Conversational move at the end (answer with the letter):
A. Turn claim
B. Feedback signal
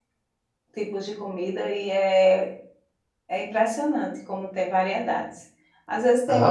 B